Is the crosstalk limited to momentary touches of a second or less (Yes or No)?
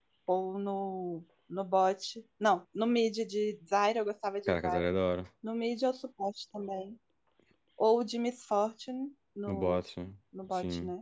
Yes